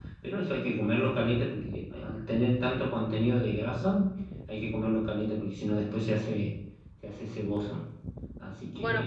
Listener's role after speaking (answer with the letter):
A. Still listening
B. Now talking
B